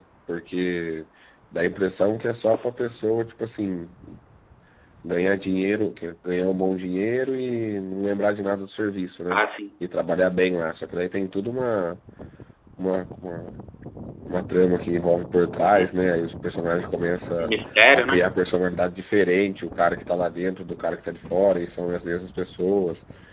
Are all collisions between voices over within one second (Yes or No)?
Yes